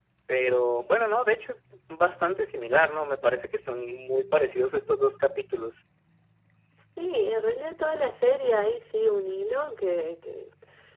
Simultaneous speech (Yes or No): No